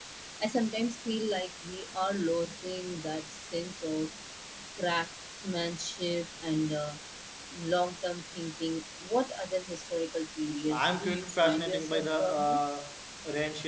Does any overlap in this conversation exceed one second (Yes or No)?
Yes